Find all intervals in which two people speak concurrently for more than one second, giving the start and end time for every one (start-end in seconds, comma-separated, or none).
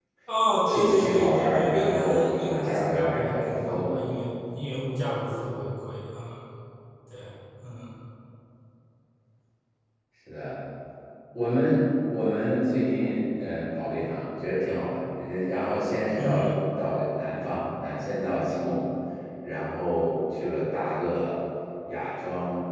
0.7-4.0